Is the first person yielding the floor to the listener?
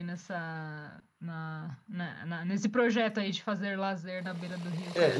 Yes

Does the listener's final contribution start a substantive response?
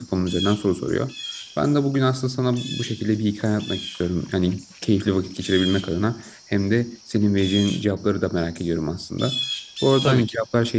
No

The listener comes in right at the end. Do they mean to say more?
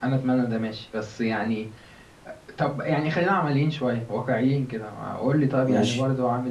No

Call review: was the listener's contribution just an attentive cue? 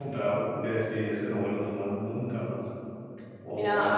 No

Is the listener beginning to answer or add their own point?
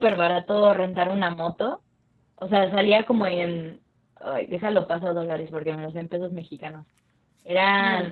No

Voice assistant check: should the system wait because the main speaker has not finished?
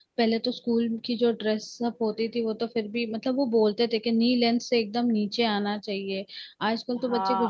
No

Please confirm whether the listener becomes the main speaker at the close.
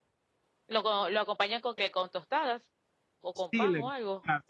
Yes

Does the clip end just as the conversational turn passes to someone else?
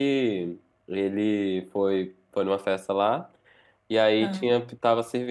No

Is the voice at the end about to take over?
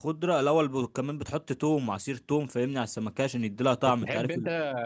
Yes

